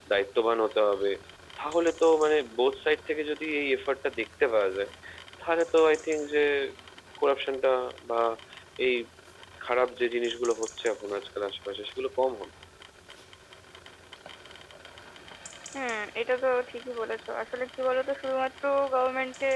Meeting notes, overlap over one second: none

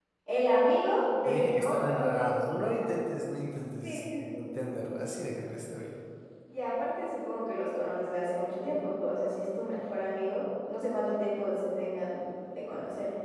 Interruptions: present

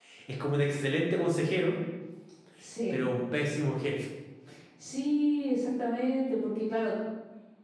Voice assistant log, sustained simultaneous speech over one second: none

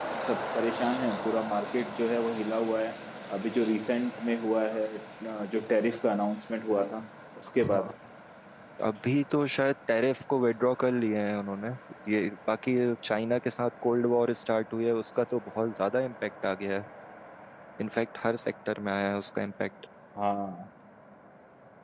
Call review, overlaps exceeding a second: none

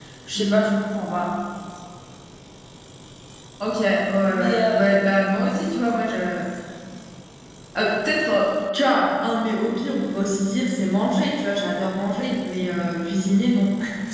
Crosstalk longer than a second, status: none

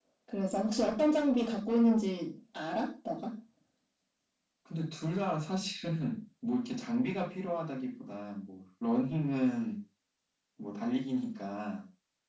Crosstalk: none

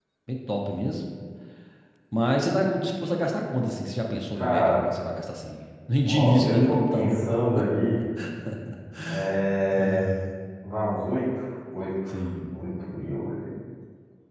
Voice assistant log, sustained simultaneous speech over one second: present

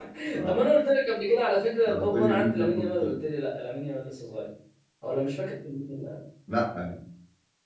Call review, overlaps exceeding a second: present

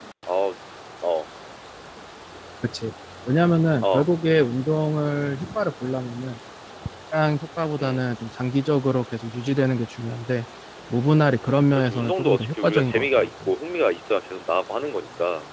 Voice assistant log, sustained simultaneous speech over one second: present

